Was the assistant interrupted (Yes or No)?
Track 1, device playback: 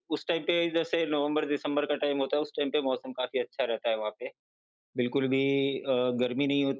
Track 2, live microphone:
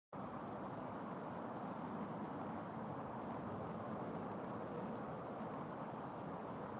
No